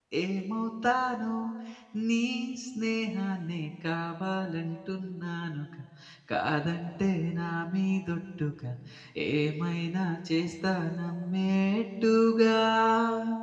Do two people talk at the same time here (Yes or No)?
No